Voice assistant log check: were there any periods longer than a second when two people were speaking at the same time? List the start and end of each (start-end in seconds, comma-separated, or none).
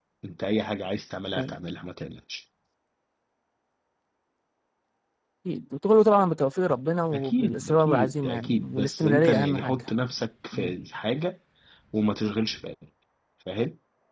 7.1-9.8